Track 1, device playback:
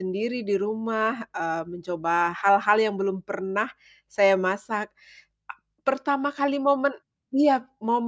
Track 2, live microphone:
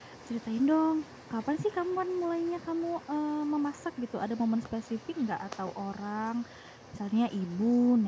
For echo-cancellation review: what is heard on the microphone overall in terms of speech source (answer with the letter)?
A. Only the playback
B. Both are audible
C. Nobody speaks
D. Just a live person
D